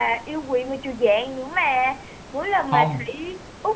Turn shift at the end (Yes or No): No